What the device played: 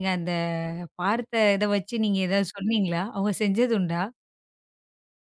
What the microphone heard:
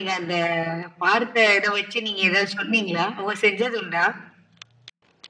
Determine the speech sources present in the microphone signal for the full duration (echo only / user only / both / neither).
echo only